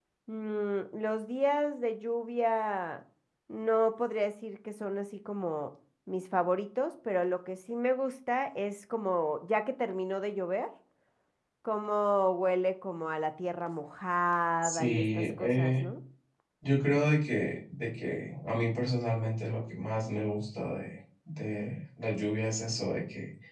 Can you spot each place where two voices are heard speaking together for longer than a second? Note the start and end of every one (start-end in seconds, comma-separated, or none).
14.6-15.8